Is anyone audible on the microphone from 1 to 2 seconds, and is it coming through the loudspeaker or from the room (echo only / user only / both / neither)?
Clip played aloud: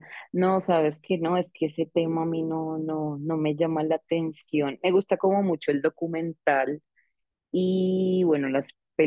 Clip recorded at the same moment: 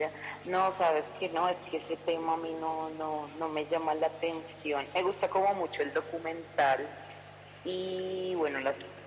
echo only